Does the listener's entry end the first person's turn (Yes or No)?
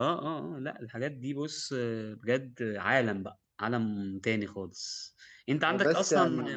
No